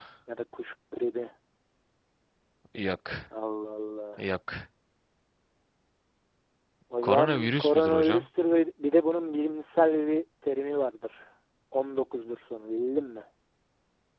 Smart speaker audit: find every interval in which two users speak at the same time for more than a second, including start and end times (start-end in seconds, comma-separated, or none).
7.0-8.2